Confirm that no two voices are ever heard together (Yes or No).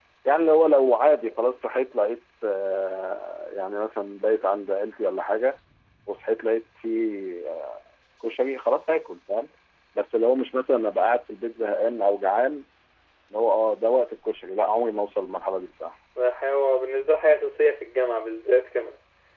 Yes